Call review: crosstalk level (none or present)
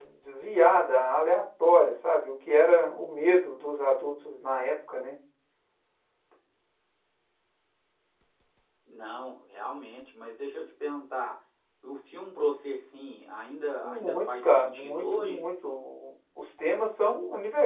present